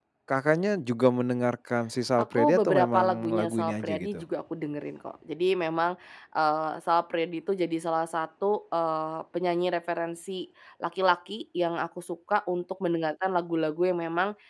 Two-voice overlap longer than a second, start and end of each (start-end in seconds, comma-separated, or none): 2.3-4.2